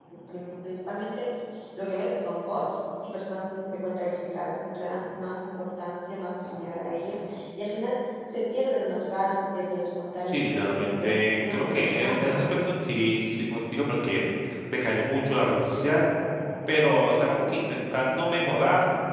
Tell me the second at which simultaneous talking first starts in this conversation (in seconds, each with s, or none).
10.2 s